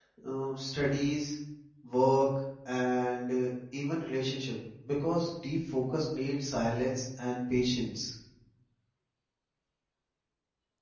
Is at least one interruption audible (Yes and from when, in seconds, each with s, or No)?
No